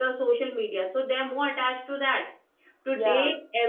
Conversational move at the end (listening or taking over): listening